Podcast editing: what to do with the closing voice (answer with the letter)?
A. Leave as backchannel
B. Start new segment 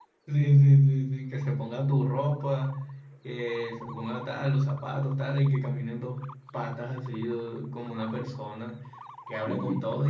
A